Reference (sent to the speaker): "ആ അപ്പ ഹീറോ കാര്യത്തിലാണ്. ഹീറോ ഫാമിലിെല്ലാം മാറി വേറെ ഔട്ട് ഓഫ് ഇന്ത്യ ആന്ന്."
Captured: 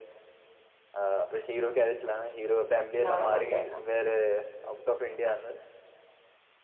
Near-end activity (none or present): present